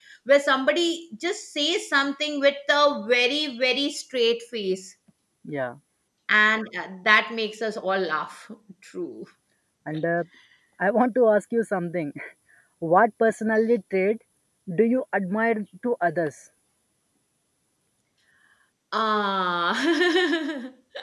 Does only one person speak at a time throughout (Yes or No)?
Yes